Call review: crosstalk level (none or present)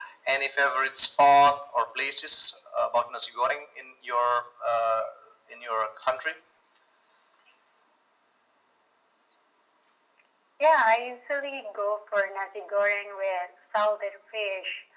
none